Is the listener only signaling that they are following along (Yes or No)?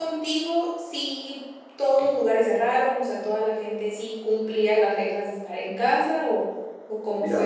No